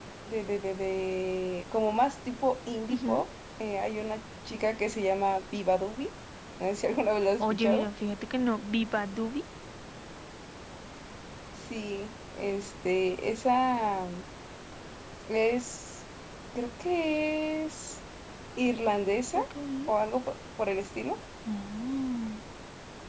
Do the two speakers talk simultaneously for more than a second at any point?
No

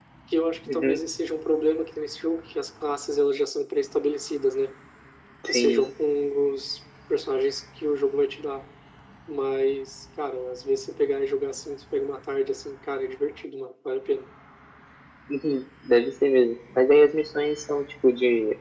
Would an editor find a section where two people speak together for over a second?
No

